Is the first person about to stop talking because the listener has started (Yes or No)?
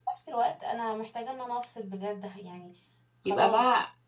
Yes